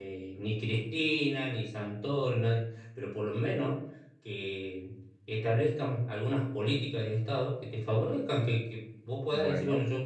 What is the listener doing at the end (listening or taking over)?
listening